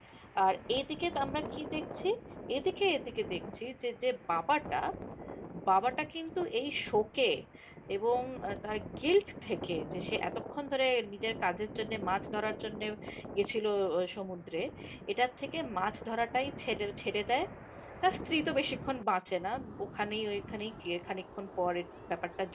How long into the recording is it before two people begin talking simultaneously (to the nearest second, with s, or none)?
none